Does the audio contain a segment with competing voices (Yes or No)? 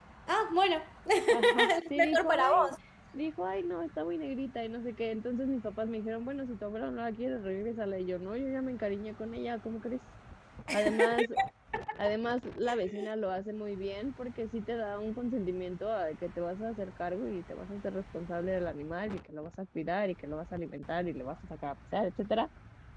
Yes